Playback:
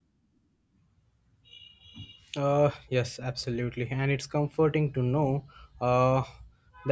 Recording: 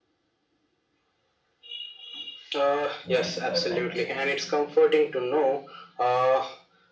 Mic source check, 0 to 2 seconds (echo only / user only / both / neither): neither